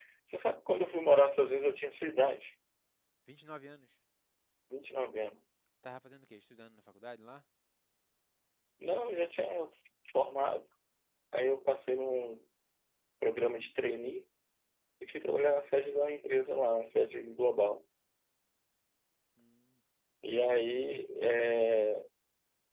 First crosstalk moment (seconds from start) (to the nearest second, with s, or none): none